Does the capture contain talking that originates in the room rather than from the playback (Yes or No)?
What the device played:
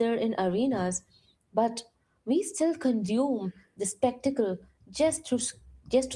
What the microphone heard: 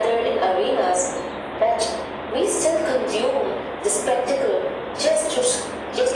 No